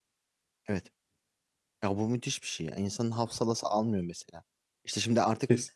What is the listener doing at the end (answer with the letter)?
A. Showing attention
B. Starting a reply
A